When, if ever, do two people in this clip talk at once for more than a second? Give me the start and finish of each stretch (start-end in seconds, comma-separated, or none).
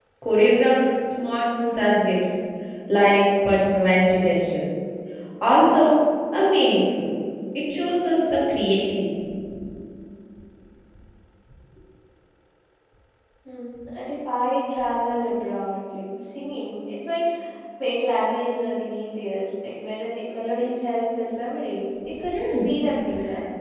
none